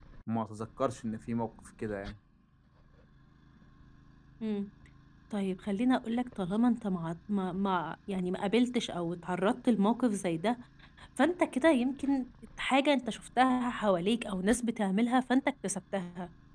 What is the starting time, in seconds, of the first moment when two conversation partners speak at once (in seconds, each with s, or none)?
none